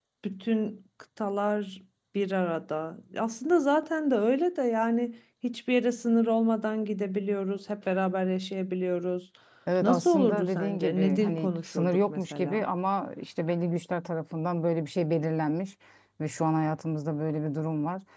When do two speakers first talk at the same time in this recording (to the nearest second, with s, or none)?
10 s